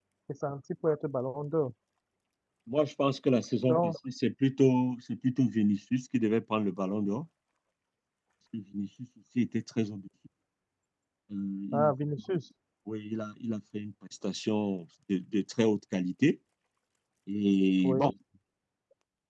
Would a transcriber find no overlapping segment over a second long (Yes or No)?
Yes